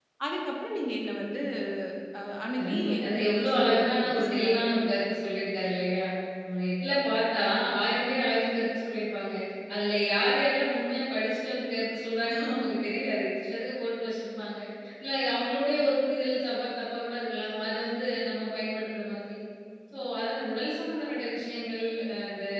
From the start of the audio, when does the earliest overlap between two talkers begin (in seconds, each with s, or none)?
2.6 s